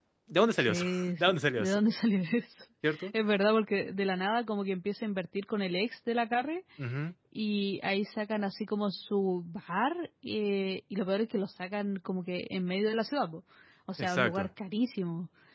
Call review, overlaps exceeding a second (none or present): present